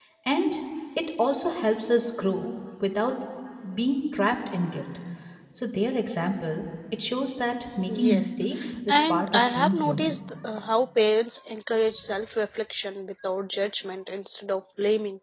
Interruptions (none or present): present